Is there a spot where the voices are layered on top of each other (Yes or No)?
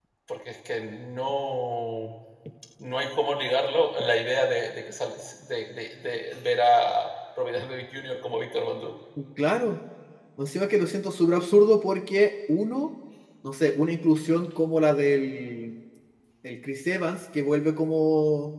No